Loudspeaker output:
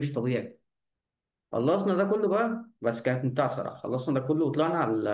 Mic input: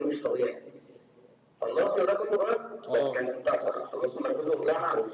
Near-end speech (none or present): present